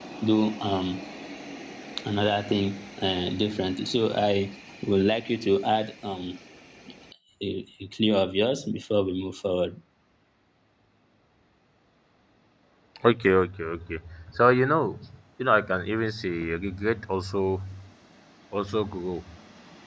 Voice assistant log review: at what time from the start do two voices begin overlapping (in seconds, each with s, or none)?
none